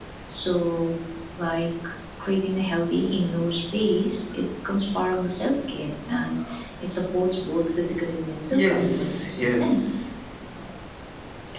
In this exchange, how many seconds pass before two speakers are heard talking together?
8.5 s

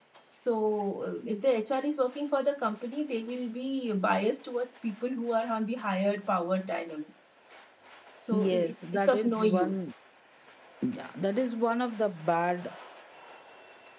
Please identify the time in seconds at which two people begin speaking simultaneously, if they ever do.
8.3 s

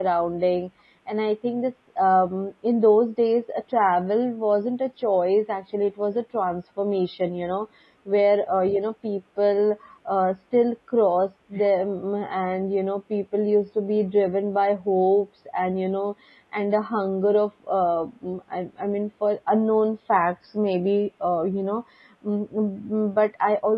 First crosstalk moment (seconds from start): none

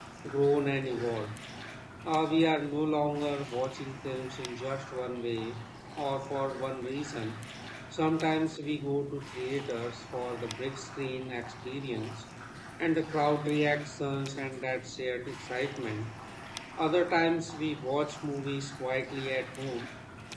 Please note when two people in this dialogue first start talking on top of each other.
none

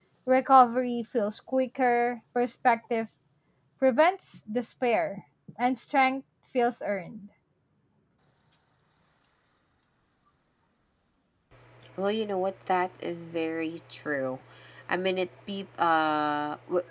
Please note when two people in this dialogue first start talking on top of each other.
none

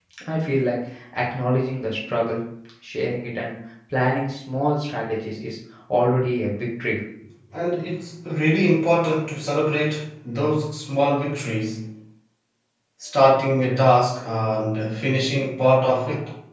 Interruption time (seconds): none

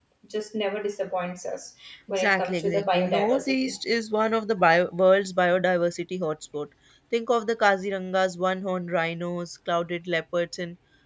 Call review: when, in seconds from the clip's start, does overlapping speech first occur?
2.1 s

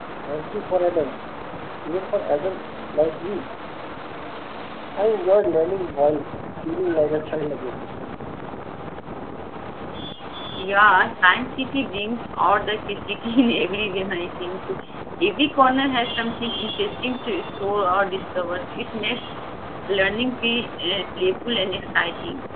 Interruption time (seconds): none

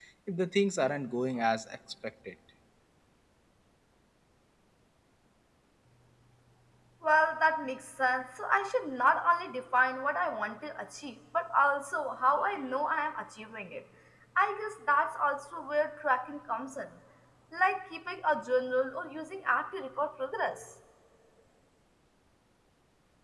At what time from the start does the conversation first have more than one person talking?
none

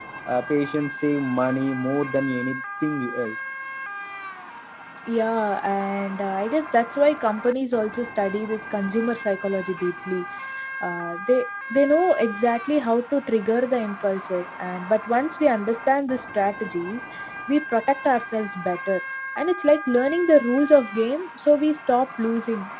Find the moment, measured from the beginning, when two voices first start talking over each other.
none

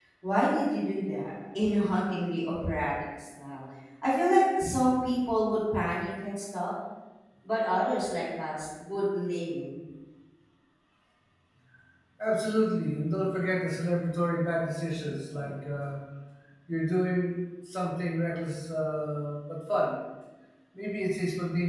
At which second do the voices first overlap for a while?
none

